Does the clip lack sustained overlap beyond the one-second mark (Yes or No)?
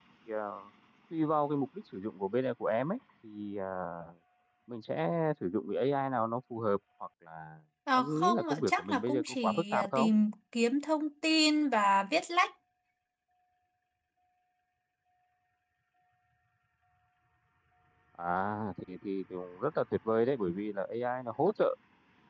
No